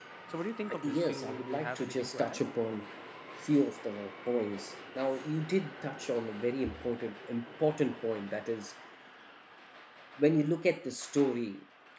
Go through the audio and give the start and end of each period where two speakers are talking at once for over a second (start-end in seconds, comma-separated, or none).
0.7-2.4